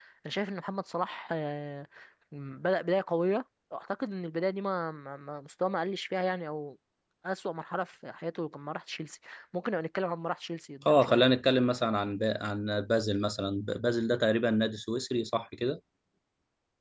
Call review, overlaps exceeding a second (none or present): none